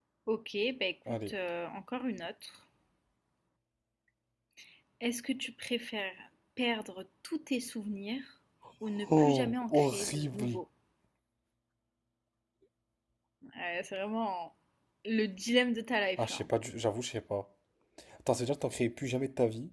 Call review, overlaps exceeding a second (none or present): present